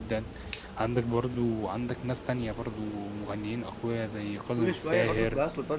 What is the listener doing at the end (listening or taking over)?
taking over